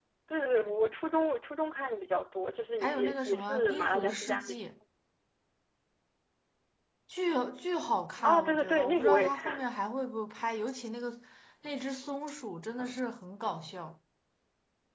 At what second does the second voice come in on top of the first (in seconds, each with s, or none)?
2.8 s